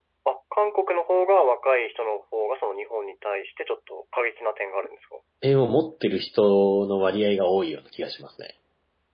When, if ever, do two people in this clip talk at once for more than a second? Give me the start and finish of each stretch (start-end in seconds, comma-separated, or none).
none